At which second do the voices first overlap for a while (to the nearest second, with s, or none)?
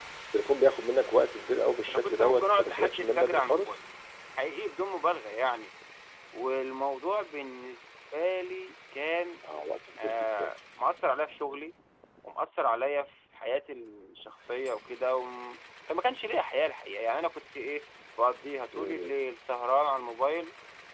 2 s